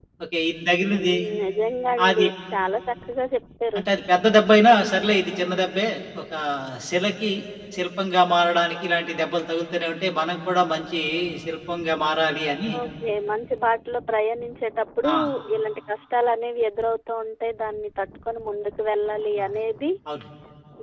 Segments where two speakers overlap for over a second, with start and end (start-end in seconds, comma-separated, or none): none